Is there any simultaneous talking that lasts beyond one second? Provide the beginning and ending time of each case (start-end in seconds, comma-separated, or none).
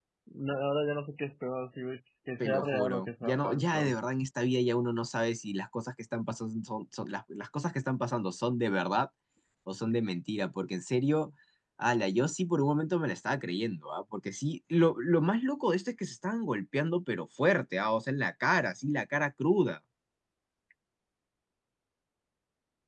2.4-4.0